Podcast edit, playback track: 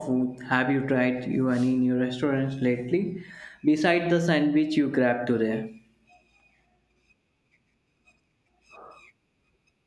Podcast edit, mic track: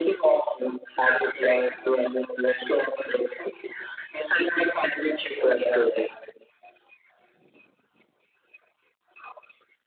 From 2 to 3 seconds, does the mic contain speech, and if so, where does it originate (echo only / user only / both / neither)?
echo only